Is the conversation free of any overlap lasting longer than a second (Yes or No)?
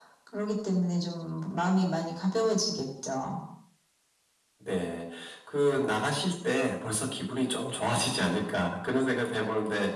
Yes